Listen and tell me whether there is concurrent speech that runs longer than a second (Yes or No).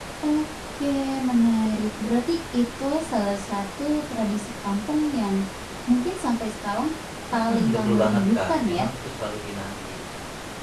Yes